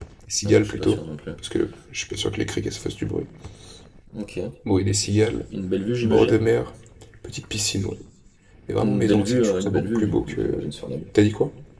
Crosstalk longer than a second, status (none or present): present